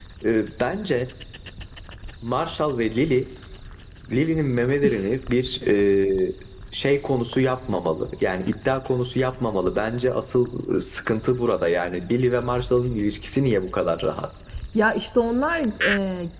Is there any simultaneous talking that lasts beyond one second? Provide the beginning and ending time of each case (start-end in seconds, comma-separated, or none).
none